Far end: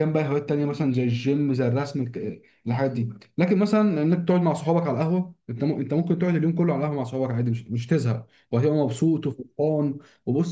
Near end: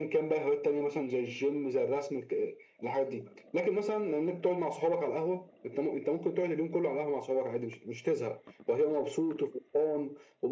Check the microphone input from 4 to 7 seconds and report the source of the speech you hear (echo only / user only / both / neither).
echo only